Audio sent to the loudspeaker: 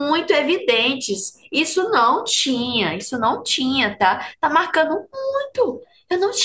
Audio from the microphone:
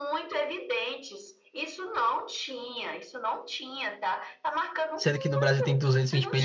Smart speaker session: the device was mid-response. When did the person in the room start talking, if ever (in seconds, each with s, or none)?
5.0 s